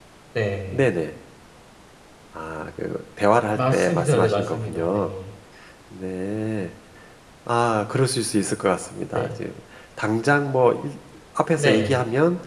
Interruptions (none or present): present